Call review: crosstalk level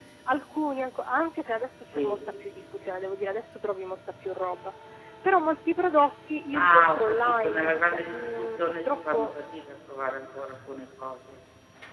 present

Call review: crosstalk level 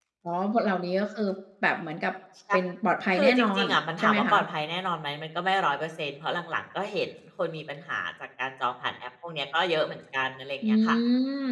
present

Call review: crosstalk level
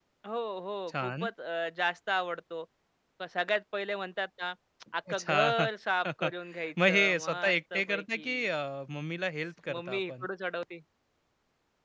present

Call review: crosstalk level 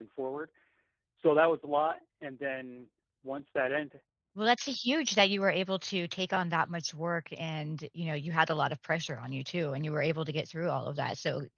none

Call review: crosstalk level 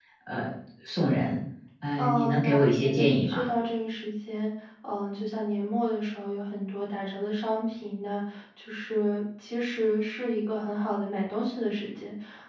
present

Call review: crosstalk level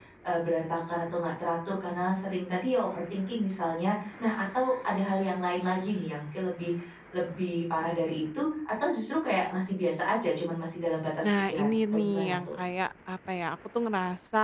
present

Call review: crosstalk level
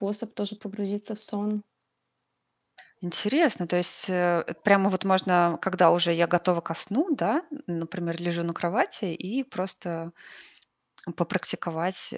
none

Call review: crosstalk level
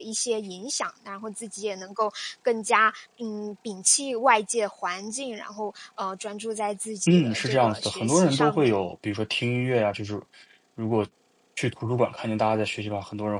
present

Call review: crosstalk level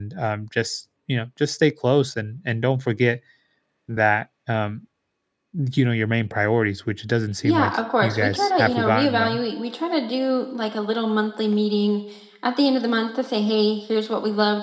present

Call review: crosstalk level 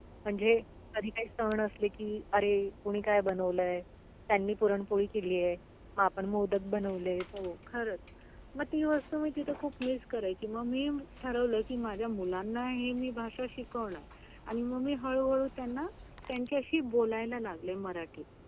none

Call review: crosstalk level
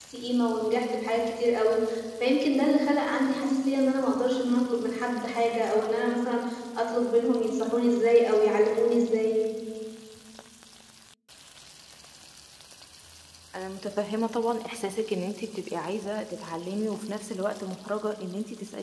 none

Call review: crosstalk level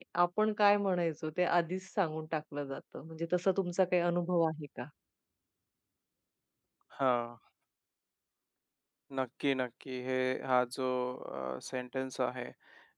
none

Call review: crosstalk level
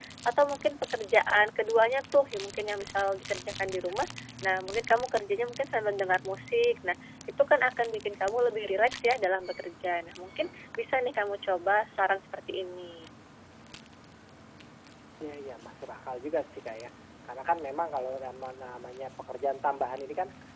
none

